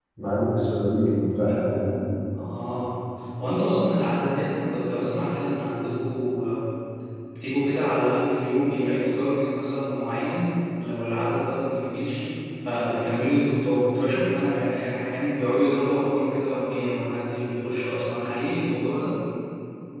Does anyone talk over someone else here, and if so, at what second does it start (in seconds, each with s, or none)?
none